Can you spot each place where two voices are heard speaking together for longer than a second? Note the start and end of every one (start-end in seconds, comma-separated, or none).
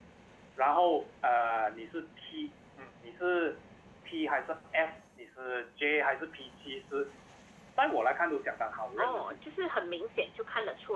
none